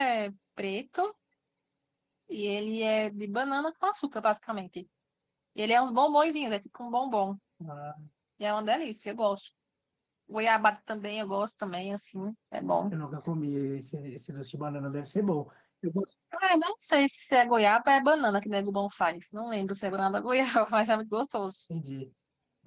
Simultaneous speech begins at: none

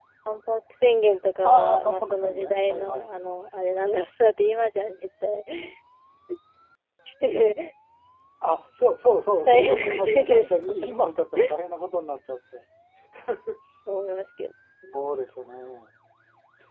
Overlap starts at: 1 s

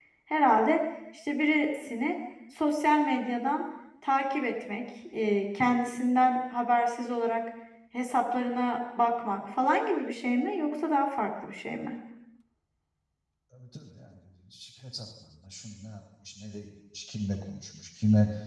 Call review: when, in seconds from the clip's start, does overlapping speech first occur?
none

